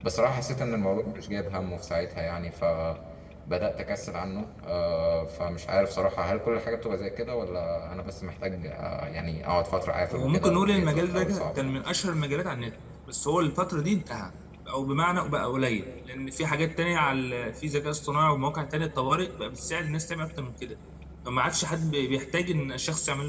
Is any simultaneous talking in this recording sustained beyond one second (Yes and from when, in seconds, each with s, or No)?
Yes, from 10.1 s